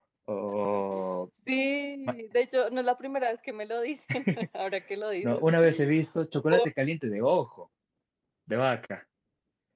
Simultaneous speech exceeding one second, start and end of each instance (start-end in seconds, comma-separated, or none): none